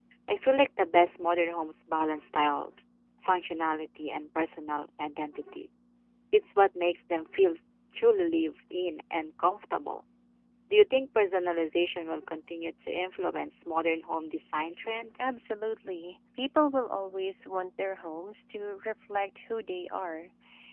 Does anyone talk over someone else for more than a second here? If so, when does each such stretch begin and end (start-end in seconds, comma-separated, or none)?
none